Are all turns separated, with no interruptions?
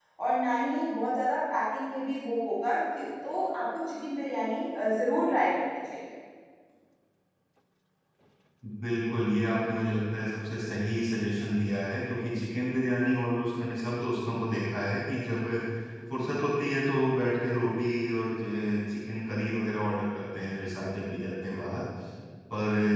Yes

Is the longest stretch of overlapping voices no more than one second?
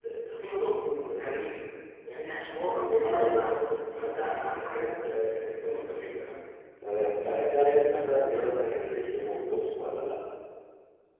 Yes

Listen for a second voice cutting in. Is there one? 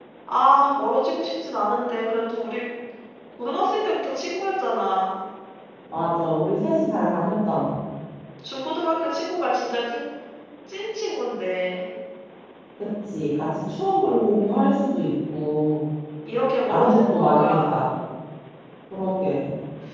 Yes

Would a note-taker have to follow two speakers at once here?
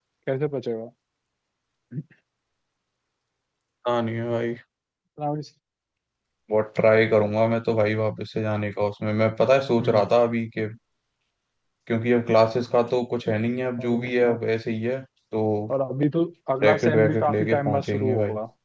Yes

